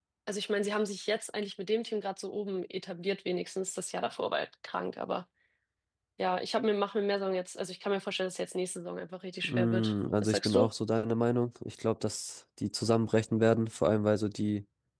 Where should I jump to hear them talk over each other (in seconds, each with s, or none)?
9.4 s